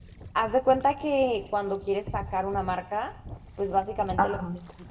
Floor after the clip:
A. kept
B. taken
A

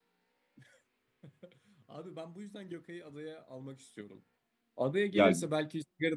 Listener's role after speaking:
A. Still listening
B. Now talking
A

